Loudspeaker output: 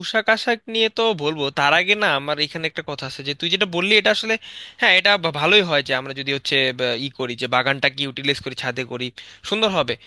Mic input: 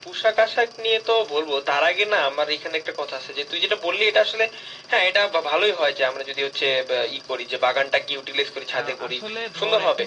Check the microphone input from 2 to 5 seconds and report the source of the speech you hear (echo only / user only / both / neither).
echo only